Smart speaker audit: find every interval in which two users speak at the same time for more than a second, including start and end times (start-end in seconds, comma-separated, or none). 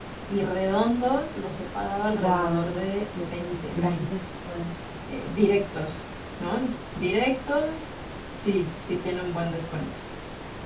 2.2-4.1